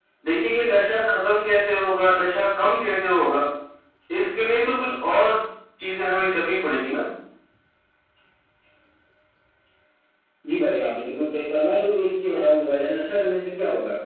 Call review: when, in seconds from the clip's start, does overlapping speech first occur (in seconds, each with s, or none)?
none